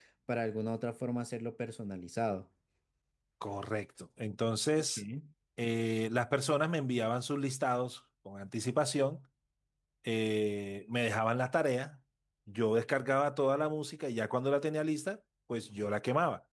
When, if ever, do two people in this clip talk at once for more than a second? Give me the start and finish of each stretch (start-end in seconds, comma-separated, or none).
none